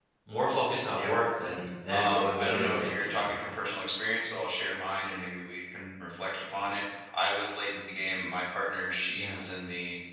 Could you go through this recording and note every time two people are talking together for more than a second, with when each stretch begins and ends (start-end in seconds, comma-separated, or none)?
1.9-3.3